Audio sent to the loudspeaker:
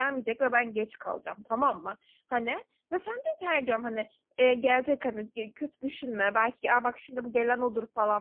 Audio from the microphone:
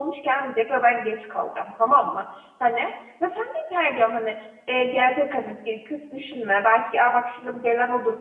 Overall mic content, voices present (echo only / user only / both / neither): echo only